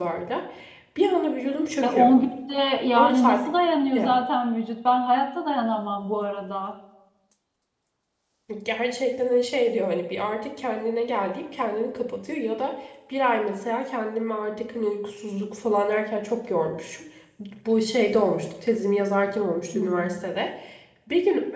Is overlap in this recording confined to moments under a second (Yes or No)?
Yes